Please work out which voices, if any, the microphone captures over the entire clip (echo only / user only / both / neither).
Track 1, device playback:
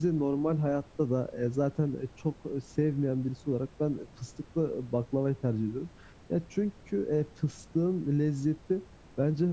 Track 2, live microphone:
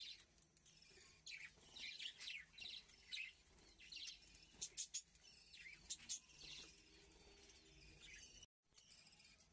neither